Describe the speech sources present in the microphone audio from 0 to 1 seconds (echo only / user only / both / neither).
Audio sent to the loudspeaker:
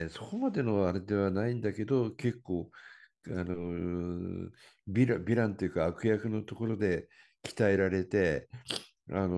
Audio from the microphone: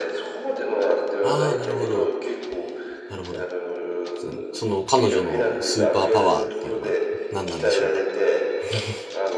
echo only